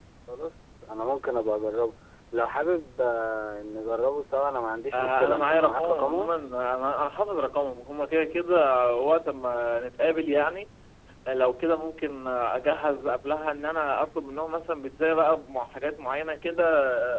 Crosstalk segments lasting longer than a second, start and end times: 4.9-6.3

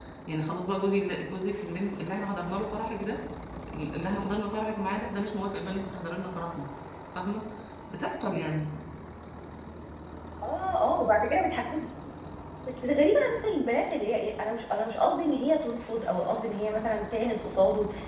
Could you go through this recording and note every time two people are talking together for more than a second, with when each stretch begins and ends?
none

